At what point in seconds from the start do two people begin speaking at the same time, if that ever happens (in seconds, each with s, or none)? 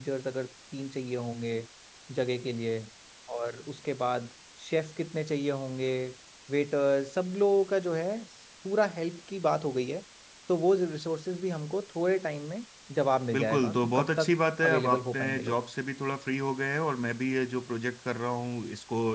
13.3 s